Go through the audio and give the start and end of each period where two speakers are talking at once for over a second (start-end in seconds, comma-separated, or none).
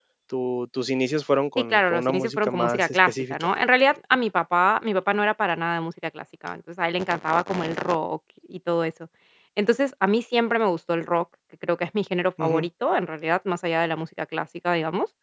1.6-3.4